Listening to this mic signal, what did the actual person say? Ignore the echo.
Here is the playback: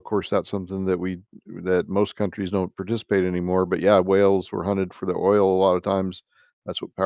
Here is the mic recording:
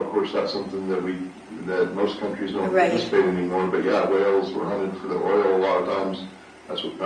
Right.

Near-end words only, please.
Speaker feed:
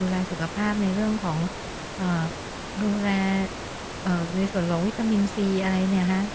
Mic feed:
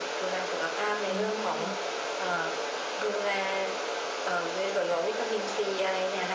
อืม

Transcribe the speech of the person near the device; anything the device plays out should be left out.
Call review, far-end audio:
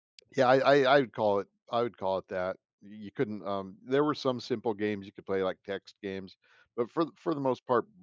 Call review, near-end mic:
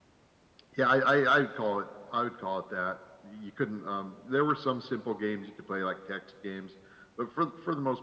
none

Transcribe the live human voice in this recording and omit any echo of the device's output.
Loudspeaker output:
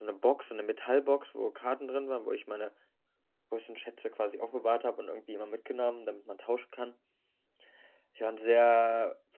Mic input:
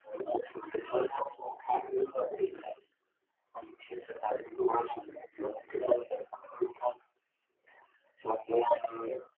und

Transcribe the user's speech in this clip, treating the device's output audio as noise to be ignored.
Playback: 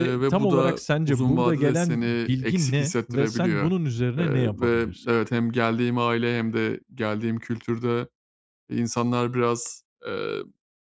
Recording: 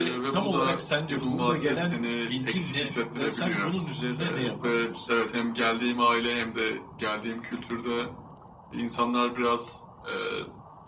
none

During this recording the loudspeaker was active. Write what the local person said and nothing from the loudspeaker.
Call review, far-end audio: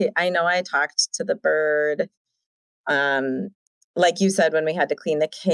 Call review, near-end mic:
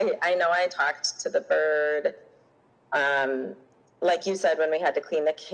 none

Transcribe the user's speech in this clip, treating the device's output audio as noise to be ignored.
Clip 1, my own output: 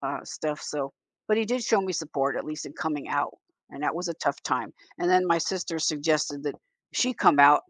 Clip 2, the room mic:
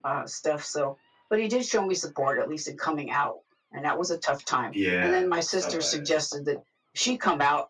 Yeah, stop by

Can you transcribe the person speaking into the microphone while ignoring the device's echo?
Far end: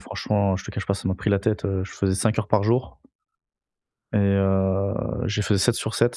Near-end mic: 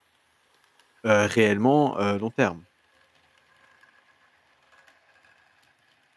heu, réellement, heu, long terme.

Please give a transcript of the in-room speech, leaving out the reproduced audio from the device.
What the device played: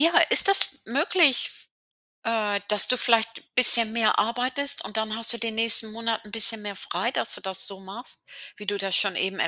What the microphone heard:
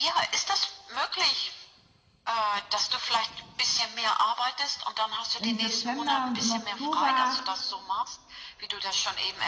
im September und im Oktober

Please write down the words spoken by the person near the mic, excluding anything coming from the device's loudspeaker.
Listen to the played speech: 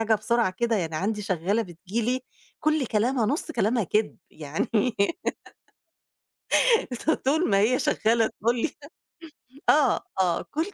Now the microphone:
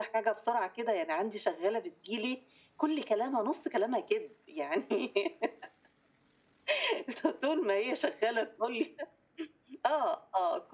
none

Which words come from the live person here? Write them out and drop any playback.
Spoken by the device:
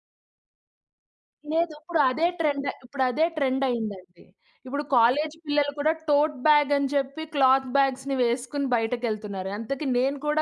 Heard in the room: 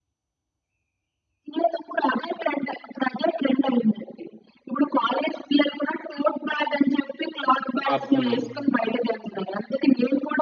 పాపం

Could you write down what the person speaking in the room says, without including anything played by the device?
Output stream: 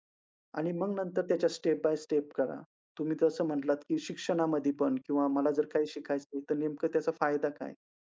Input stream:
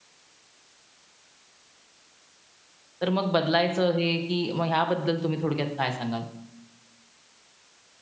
तर मग बदलायचं हे, की मग ह्याबद्दल तुम्ही थोडक्यात काय सांगाल

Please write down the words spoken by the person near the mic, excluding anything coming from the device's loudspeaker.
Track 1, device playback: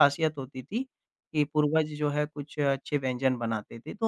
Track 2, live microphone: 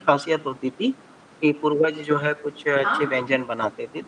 हाँ,

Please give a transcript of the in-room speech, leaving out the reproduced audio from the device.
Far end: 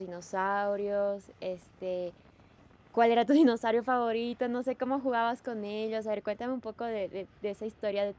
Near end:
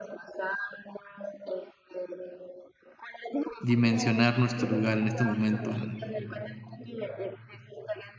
dimensionar nuestro lugar en este momento, en

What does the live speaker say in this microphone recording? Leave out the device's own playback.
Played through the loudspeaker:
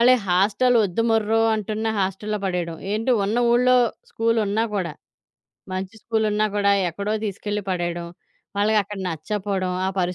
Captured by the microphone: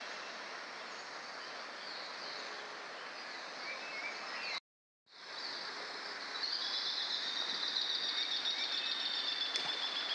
none

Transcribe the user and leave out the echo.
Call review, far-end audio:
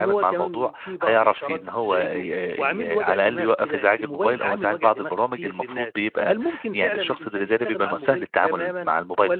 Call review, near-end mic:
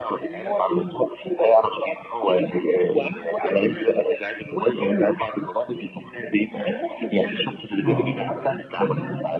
آه. إمم.

